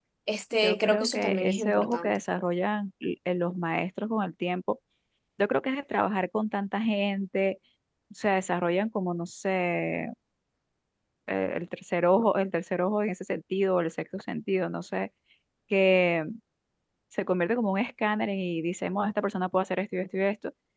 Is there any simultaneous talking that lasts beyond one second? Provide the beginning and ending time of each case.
0.5-2.2

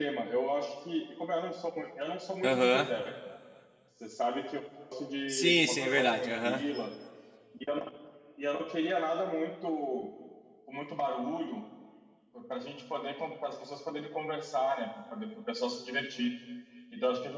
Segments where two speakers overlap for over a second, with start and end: 5.3-6.6

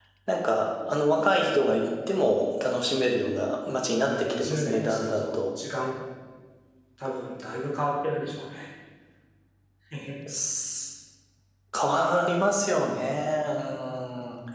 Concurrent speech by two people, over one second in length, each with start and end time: 4.1-5.3

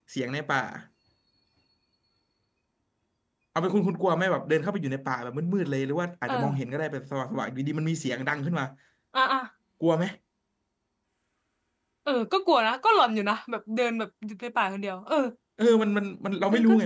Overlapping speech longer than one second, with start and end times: none

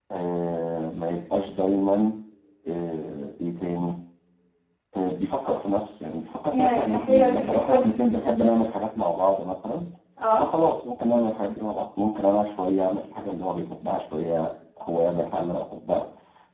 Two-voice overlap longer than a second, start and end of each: 6.5-7.9

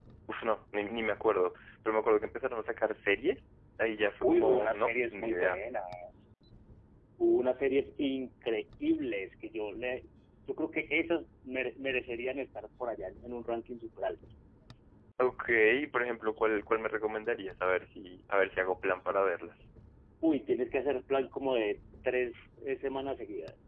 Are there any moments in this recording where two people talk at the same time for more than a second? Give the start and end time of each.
4.2-5.6

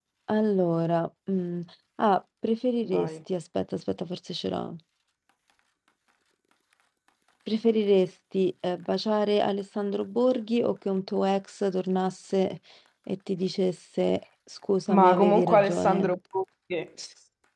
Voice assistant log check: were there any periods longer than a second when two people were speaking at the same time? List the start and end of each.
14.9-16.1

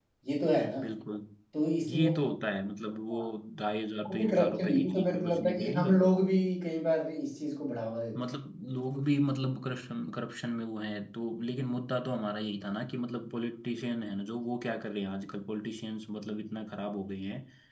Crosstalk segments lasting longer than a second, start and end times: 4.1-6.0

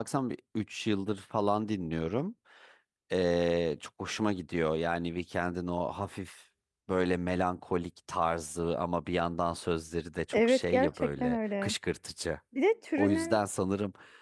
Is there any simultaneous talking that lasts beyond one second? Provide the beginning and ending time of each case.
10.3-11.7

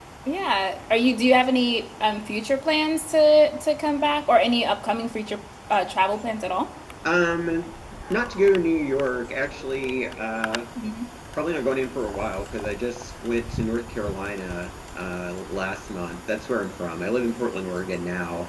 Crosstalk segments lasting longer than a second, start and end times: none

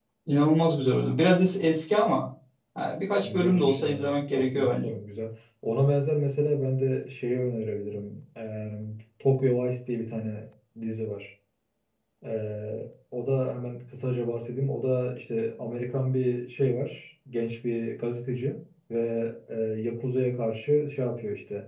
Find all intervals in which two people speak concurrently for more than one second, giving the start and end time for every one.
3.2-4.9

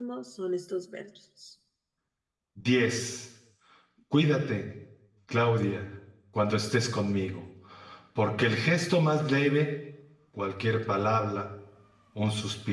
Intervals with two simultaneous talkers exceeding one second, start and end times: none

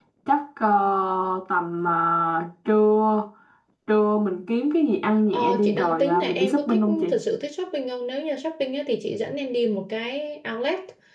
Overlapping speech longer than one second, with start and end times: 5.3-7.2

